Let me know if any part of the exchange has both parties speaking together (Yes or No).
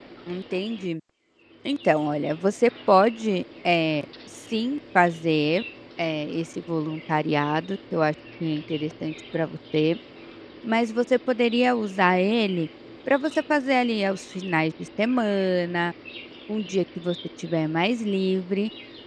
No